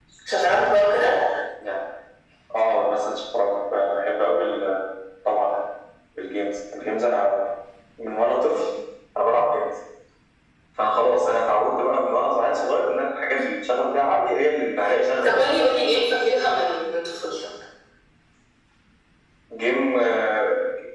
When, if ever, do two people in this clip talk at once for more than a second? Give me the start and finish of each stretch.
none

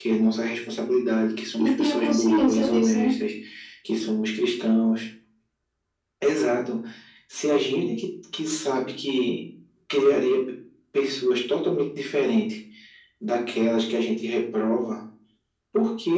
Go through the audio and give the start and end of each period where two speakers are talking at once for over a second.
1.6-3.1

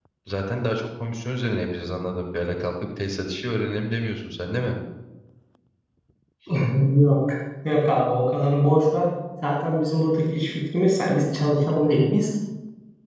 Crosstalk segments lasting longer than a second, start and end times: none

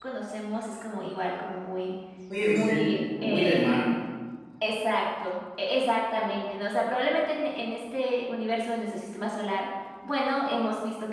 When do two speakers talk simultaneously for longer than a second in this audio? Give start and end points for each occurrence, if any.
2.5-3.9

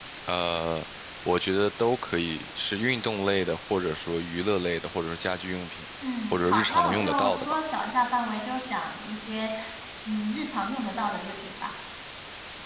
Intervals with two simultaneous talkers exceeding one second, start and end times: 6.3-7.6

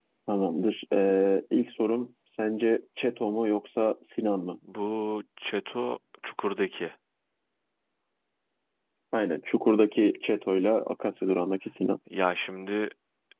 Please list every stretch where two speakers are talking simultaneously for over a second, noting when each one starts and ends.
none

